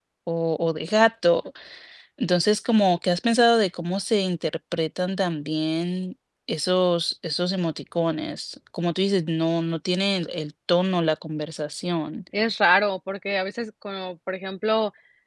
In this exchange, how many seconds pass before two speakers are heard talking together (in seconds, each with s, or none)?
none